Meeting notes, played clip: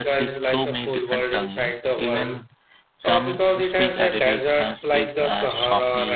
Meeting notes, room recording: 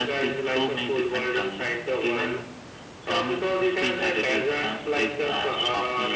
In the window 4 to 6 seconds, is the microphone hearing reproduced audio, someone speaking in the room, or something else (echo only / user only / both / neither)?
echo only